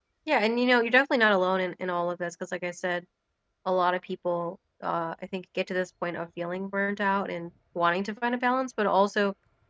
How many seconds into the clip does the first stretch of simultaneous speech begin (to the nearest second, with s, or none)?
none